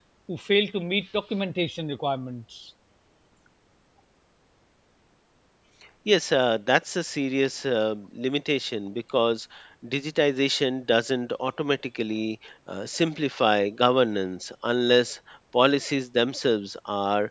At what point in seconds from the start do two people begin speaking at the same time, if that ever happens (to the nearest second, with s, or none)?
none